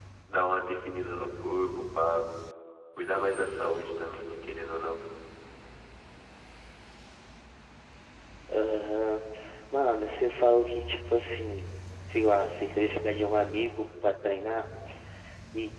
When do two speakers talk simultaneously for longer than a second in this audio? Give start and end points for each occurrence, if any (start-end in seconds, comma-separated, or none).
none